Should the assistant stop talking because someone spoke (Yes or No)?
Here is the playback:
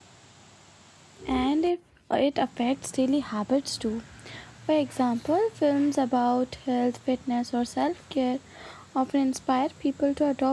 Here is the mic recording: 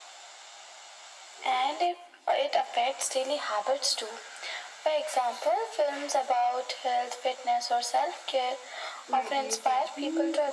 Yes